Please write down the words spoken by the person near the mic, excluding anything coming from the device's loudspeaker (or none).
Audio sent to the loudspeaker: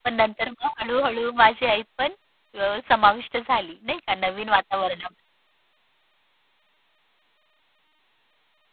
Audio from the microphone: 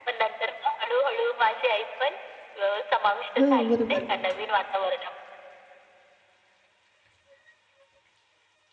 हां. बरोबर